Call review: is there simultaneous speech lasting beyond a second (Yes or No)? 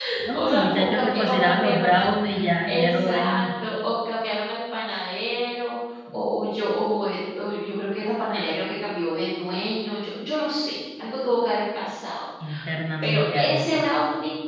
Yes